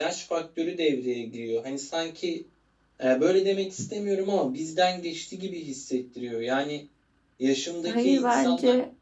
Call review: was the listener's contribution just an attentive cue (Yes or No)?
Yes